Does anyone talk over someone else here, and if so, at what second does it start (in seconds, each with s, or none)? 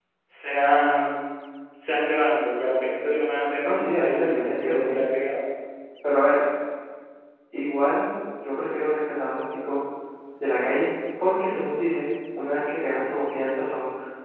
3.6 s